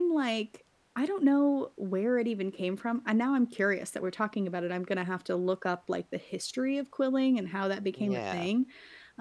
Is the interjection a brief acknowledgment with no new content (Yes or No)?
Yes